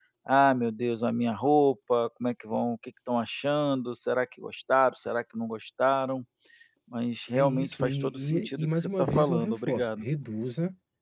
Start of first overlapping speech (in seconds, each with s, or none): 7.4 s